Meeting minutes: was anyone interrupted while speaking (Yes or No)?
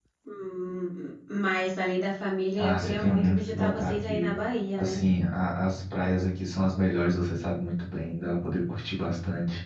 Yes